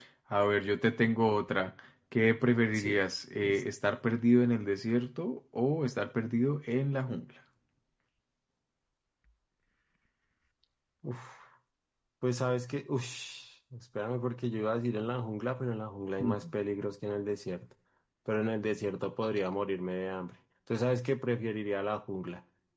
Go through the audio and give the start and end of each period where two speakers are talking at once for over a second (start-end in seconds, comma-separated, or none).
none